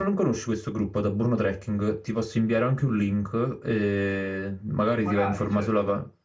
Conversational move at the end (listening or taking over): listening